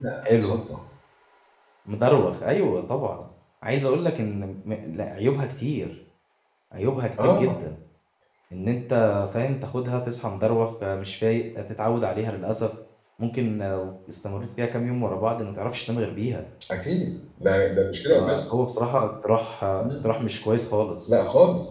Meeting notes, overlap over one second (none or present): none